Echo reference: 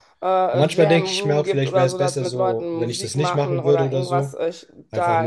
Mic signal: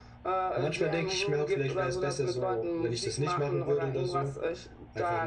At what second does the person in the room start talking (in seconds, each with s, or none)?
none